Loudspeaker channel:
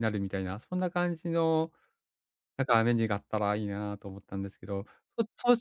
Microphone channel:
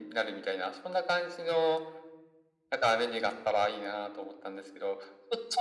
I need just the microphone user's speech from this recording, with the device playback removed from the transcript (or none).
none